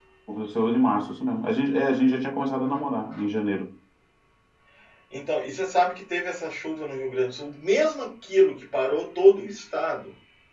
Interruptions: none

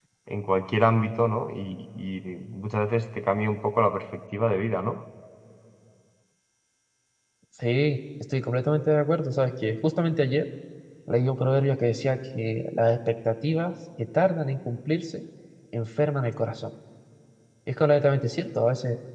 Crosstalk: none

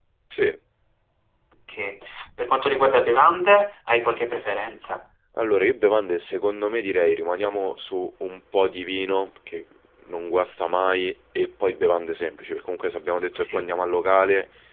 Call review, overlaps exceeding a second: none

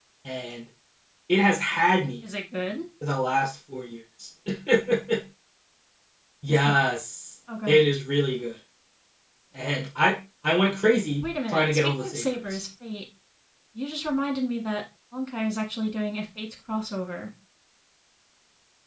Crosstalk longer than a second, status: present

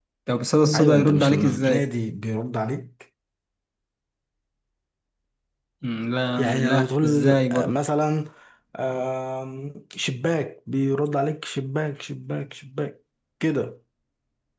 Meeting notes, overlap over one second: present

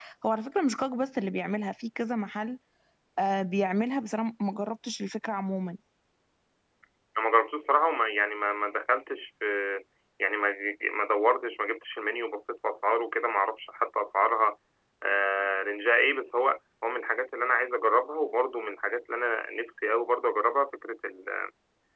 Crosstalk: none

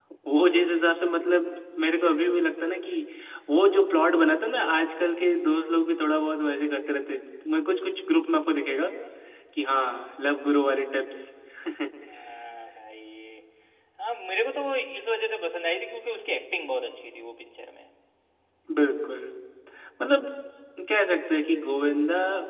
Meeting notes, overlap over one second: none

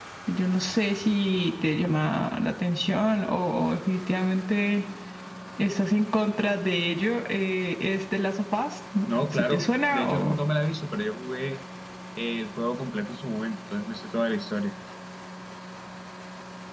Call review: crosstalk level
present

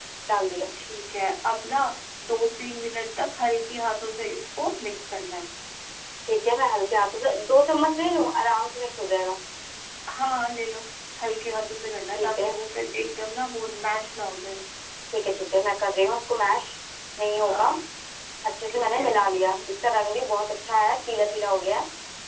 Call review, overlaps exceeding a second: none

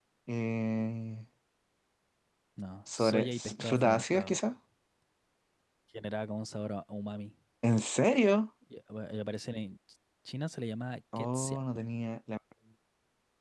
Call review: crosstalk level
present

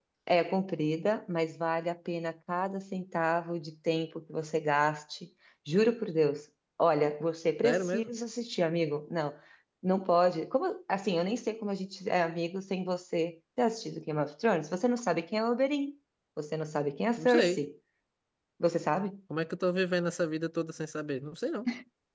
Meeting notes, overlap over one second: none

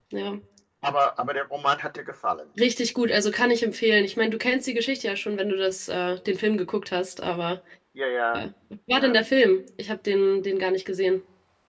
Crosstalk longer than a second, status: none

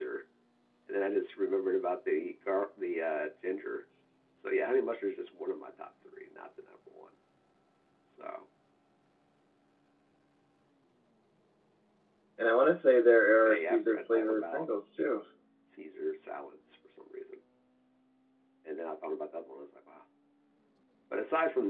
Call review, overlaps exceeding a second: present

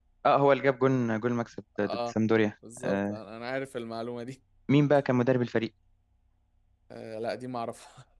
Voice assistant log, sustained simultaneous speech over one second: none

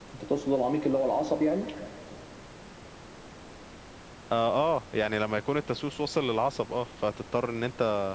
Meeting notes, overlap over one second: none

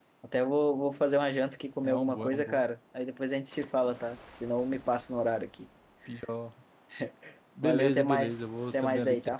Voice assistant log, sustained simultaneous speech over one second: present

